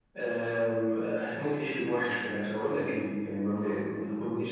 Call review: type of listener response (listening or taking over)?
listening